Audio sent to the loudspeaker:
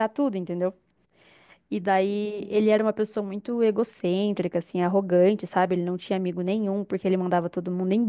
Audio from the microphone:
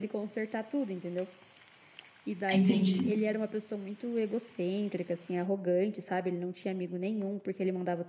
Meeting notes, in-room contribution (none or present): present